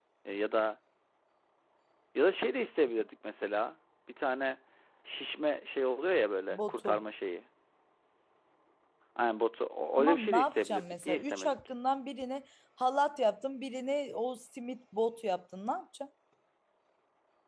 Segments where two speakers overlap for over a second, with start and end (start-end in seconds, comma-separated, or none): 10.0-11.6